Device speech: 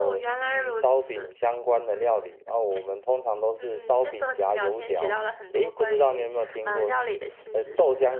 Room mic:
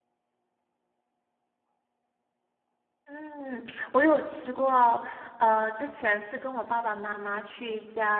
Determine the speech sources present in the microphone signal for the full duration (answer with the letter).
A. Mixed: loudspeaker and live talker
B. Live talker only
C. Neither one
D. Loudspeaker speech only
B